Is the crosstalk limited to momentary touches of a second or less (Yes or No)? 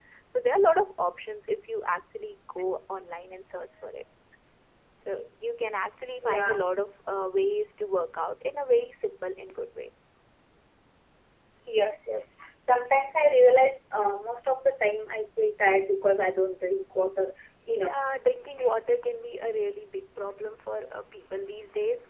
Yes